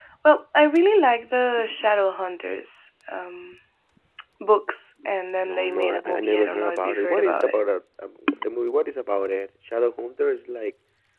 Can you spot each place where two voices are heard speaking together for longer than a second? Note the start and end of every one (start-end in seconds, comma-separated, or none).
5.4-7.5